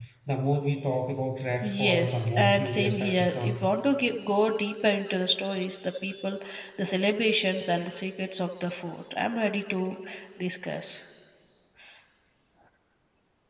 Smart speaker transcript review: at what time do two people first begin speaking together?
1.6 s

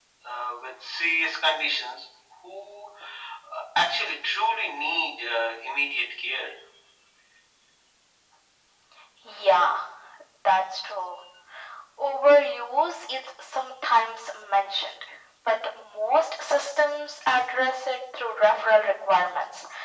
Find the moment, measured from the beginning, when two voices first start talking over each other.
none

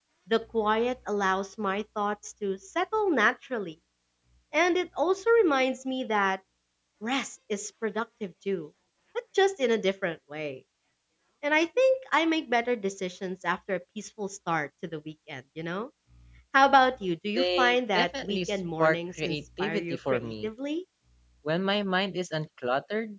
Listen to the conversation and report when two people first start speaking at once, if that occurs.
17.4 s

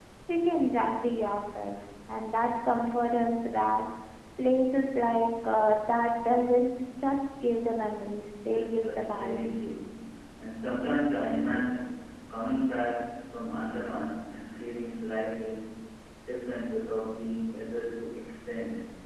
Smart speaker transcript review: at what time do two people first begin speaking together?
8.5 s

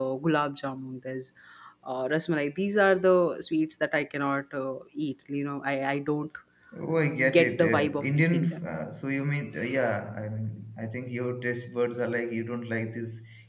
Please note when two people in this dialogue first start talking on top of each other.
7.4 s

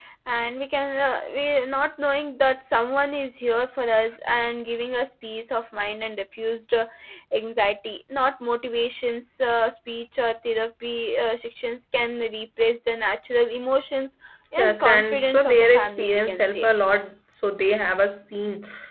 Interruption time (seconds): 14.6 s

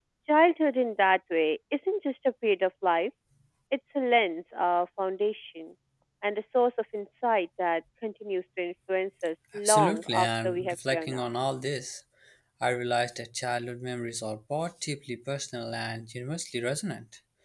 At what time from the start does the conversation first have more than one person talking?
9.5 s

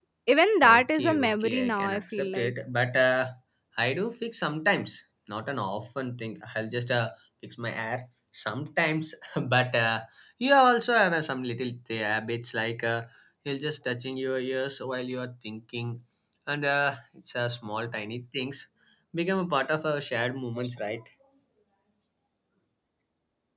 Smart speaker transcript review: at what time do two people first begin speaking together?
0.8 s

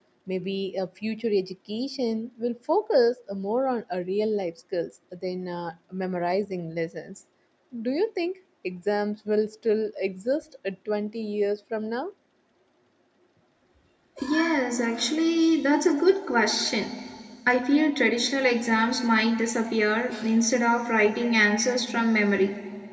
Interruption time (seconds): none

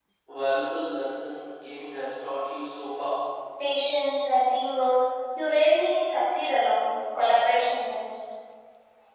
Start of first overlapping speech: none

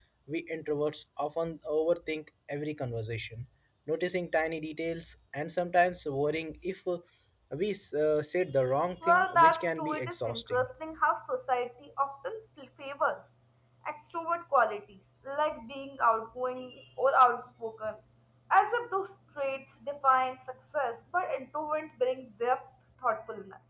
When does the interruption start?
9.0 s

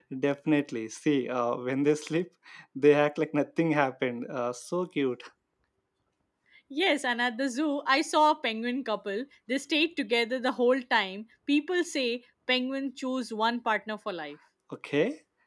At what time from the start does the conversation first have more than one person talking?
none

